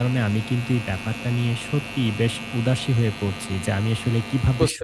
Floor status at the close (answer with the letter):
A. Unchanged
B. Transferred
A